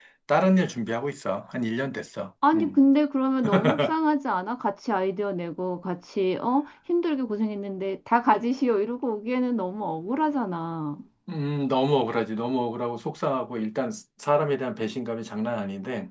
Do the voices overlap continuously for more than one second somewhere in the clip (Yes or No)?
No